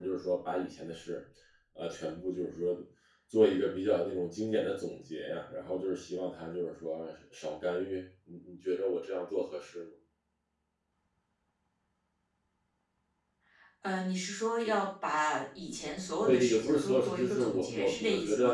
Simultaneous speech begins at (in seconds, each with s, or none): 16.2 s